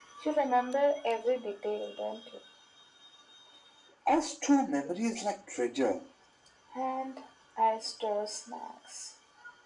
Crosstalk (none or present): none